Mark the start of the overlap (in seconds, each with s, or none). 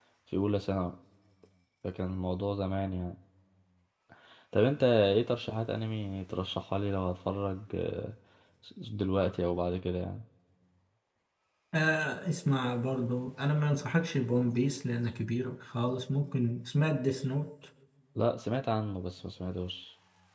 none